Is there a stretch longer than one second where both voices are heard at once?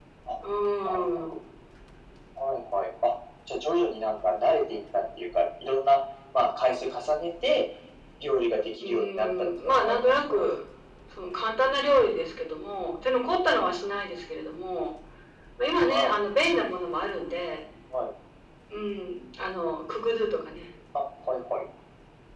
Yes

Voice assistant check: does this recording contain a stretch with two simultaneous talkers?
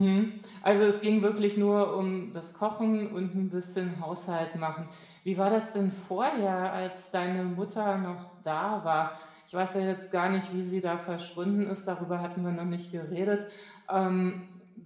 No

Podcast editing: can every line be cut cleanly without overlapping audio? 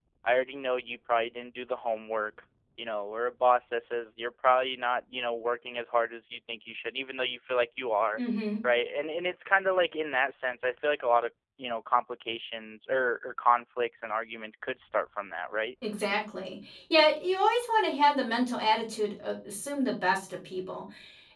Yes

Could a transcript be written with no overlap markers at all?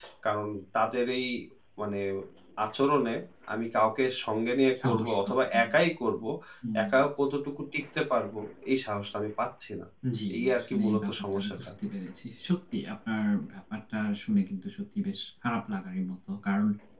No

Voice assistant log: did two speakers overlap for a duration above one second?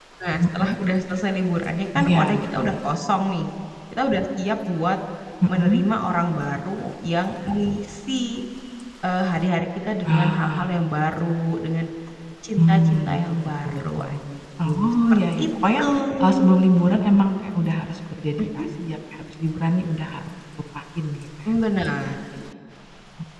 Yes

